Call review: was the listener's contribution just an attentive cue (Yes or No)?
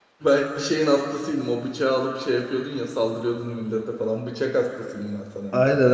No